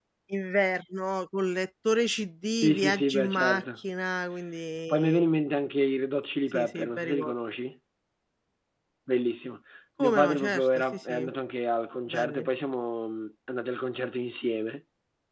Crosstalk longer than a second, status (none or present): present